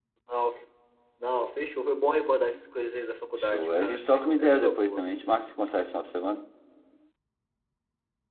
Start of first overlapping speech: 3.4 s

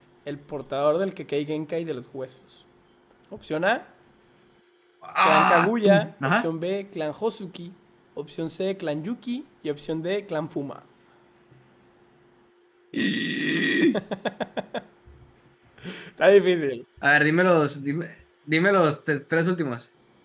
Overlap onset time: 5.2 s

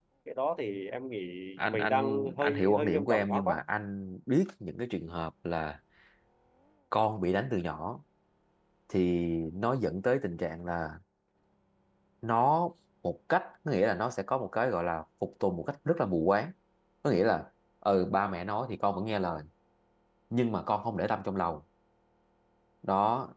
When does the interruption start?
1.7 s

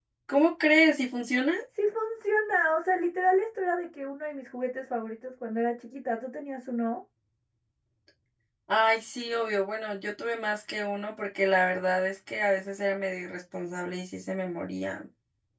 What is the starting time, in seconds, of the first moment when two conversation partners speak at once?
none

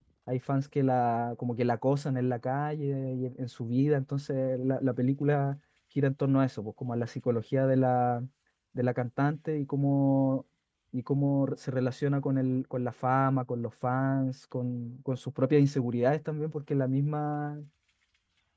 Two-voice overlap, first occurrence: none

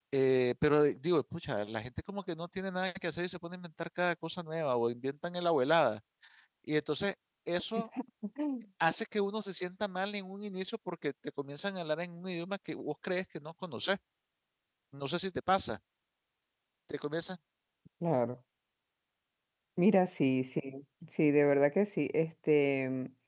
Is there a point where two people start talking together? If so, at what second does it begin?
none

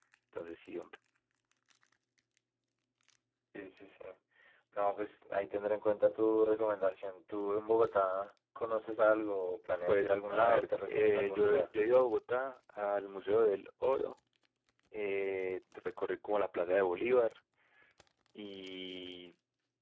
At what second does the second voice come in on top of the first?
9.9 s

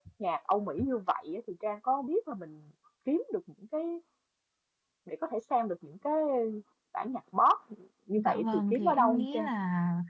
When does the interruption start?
8.2 s

